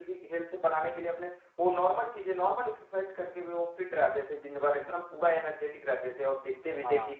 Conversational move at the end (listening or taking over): listening